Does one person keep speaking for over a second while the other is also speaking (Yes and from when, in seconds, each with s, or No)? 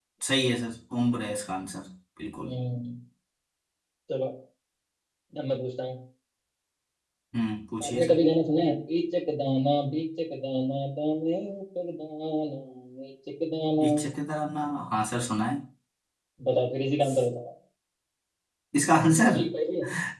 No